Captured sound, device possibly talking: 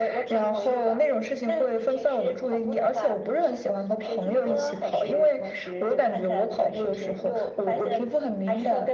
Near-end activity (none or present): none